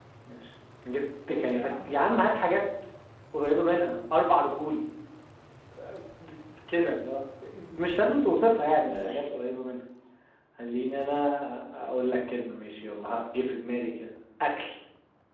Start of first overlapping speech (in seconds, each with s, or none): 1.3 s